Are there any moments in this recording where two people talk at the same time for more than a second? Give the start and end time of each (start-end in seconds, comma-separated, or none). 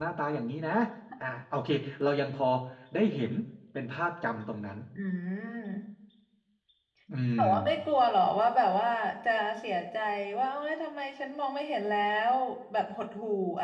none